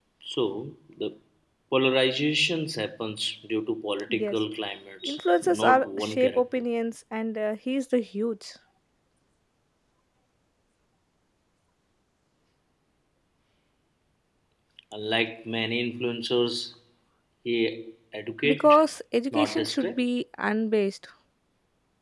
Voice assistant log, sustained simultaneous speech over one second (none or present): present